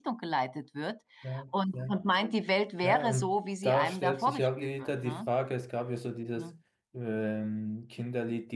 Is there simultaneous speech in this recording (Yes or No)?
Yes